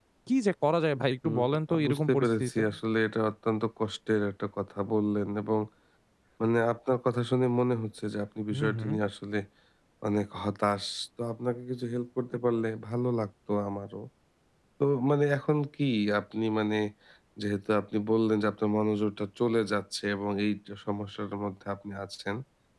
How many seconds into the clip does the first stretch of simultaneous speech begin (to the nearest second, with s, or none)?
1 s